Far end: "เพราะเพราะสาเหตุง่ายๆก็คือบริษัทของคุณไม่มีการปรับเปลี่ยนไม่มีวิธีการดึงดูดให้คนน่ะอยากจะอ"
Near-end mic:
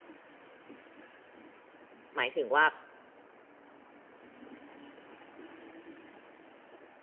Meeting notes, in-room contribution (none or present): present